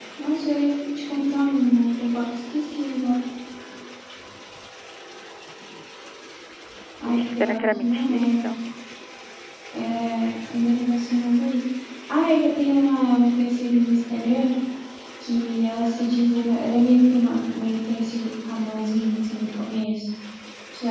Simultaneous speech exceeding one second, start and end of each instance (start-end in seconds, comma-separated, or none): 7.1-8.4